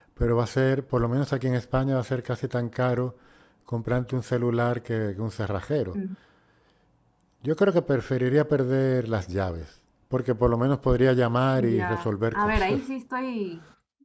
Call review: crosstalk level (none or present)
present